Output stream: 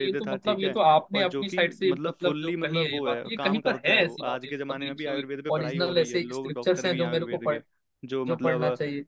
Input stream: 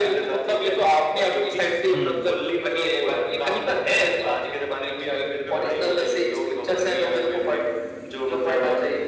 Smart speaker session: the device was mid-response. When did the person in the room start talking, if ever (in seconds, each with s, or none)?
1.9 s